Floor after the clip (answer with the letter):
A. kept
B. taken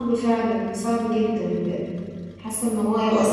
A